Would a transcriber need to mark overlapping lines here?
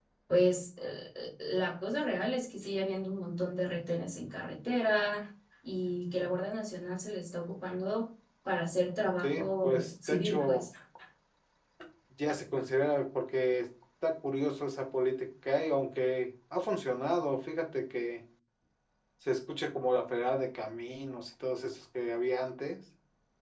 Yes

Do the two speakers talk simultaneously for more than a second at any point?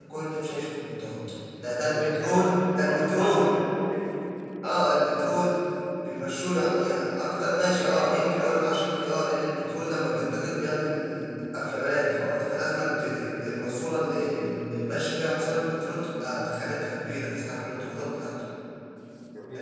Yes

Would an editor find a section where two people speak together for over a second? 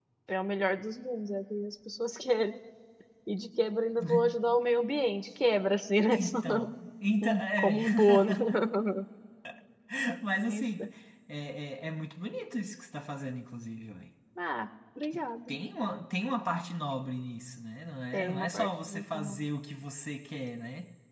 Yes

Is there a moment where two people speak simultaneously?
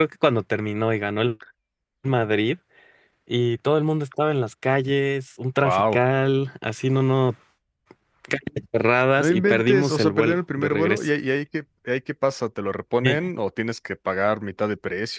Yes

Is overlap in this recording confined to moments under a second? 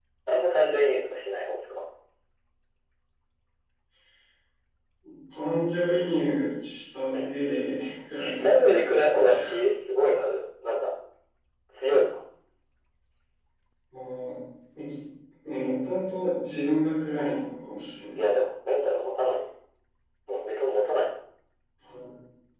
No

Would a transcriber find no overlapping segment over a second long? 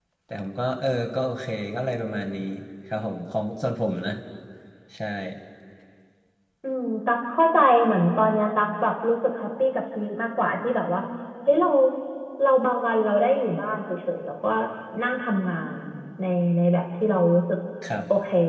Yes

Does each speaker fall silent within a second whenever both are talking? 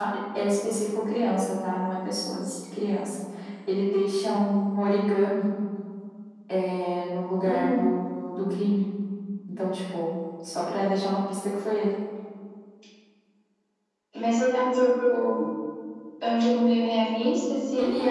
Yes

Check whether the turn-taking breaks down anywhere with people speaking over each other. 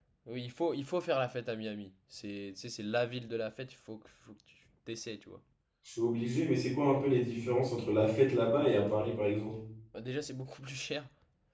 No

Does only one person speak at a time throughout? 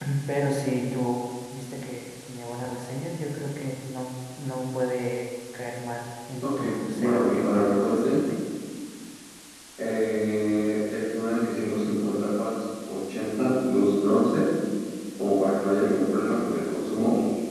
No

